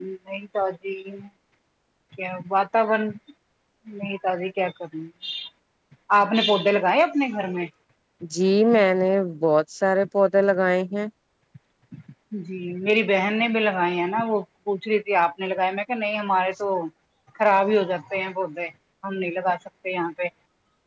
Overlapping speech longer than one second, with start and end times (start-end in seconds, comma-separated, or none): none